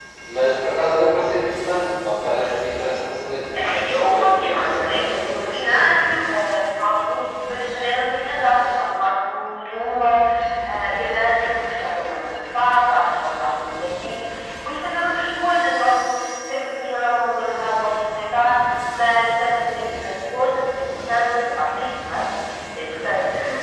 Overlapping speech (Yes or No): Yes